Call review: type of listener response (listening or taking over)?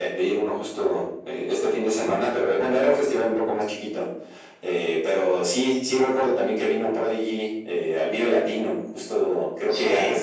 listening